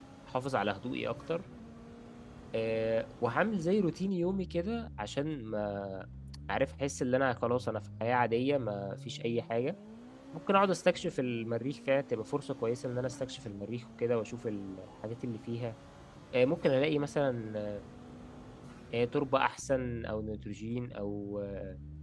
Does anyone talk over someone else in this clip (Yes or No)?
No